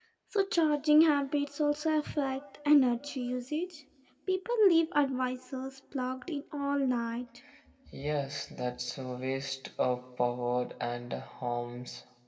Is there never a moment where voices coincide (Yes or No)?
Yes